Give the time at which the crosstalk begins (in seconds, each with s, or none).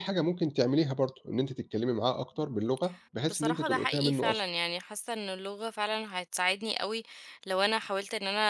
3.3 s